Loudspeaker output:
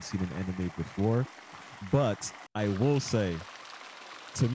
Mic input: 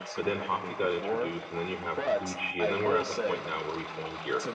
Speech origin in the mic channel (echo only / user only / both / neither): both